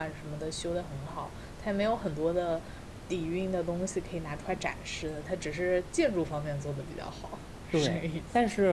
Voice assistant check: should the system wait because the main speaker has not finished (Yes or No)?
No